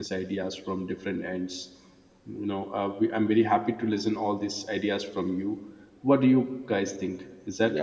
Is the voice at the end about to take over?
Yes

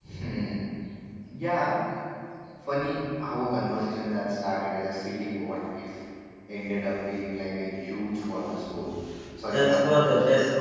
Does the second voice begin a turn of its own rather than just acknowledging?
Yes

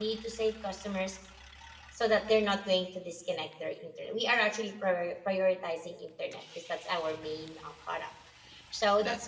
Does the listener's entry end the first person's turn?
No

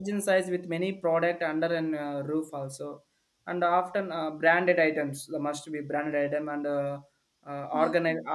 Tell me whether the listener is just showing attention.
Yes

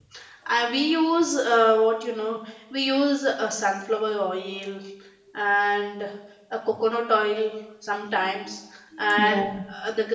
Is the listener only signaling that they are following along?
Yes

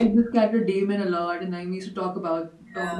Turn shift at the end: Yes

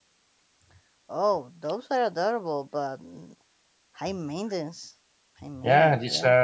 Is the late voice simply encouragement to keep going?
No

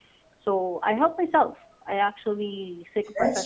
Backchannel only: Yes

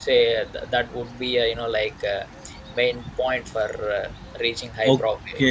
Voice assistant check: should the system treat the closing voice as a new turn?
Yes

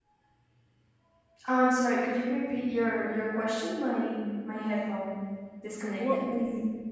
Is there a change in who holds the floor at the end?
Yes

